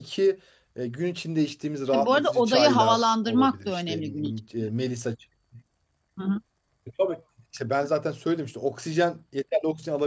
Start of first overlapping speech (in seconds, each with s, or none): 1.9 s